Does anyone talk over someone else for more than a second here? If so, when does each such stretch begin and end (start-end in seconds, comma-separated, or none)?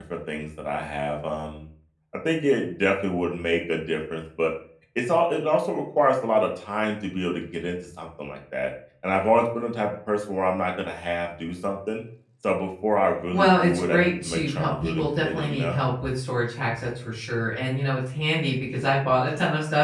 13.3-15.8